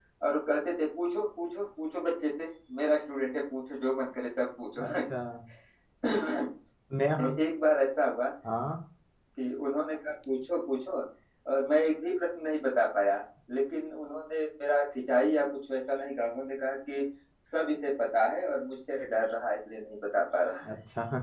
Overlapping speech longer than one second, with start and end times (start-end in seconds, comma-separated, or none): none